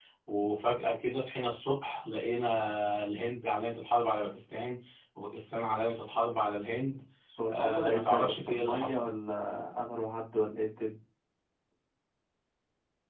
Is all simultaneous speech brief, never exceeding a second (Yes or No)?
No